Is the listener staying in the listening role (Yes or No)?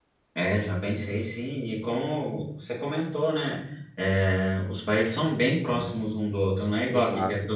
Yes